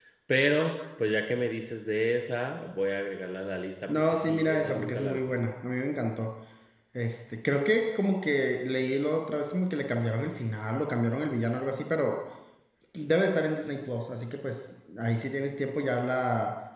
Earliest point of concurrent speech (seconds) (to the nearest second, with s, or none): 4 s